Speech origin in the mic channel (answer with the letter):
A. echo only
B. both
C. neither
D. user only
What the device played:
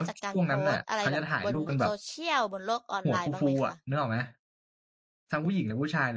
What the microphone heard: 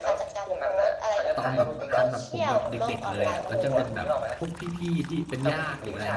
B